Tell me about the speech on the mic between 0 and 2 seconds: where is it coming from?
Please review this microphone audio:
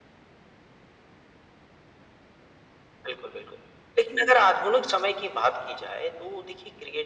neither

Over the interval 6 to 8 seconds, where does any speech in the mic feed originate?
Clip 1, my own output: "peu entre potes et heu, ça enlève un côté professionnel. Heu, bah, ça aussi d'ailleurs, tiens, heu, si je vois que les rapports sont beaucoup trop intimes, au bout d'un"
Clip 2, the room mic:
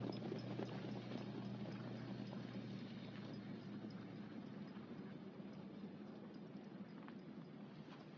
neither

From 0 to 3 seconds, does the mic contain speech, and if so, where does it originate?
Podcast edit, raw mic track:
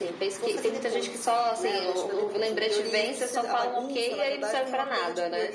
echo only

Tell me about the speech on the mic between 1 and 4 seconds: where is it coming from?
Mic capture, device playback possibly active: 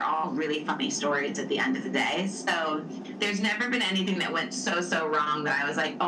echo only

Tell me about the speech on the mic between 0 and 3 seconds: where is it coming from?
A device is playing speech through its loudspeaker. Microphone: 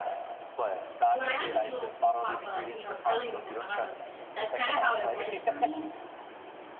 both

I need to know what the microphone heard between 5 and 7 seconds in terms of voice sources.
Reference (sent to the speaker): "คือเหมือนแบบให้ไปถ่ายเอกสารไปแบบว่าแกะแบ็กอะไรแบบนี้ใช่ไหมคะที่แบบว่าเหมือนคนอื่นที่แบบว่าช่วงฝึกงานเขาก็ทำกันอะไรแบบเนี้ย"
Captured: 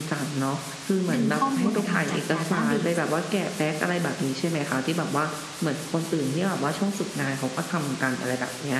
echo only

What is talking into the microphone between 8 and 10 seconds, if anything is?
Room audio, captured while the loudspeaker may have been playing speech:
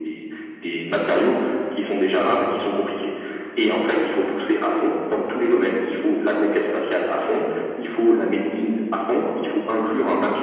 echo only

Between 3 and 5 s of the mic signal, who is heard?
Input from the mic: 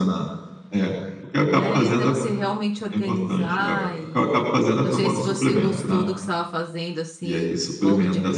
both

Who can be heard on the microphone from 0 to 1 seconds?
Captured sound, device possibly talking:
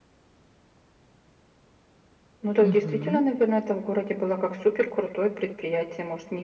neither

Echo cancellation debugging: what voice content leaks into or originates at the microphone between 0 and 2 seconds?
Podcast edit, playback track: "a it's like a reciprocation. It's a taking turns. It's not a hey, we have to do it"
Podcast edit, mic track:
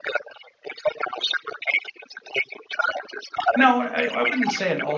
echo only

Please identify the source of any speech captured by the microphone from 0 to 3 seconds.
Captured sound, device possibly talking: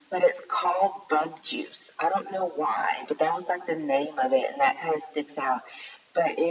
echo only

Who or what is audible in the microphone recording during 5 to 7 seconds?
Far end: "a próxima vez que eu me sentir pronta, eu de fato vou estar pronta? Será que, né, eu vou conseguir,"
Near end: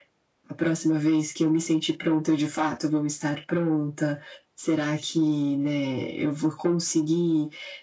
echo only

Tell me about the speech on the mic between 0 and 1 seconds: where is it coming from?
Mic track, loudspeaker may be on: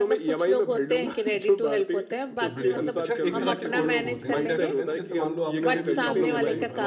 echo only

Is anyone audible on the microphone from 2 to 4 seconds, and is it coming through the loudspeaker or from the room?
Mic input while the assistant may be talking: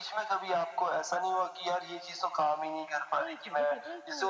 both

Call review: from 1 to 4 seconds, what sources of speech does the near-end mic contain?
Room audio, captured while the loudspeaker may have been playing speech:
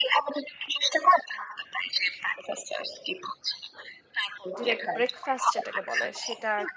echo only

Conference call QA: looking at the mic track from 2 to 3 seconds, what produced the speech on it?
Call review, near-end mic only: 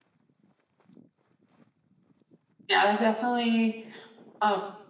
user only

